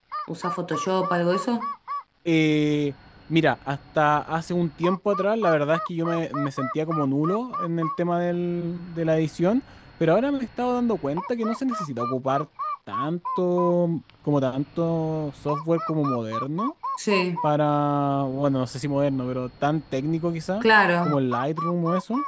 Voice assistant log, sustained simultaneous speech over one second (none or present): none